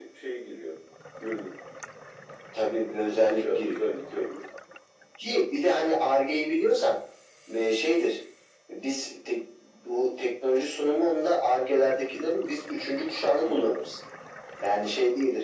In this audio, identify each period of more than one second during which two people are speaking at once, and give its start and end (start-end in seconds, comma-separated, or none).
none